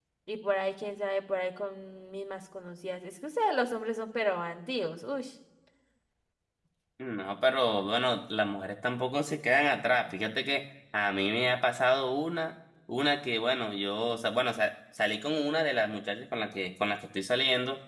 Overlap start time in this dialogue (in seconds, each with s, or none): none